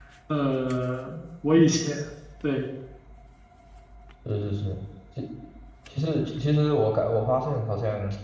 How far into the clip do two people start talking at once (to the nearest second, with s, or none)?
none